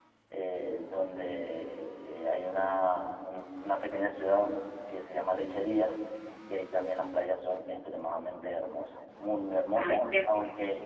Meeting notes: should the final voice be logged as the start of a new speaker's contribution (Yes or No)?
No